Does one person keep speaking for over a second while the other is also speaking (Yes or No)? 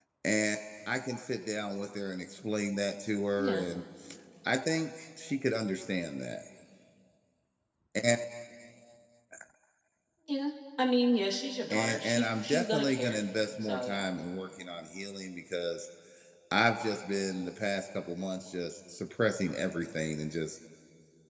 Yes